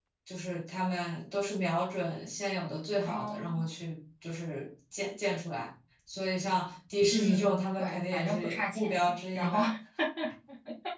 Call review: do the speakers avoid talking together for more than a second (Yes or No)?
No